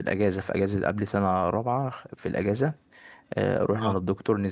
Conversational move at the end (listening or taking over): listening